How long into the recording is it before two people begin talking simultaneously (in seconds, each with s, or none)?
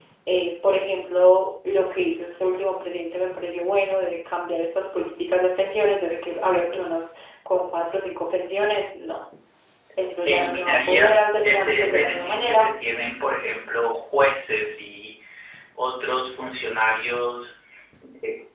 10.3 s